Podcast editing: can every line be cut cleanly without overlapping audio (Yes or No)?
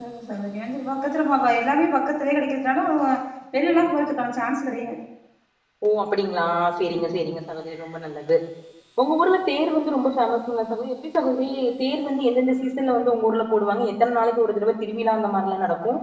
Yes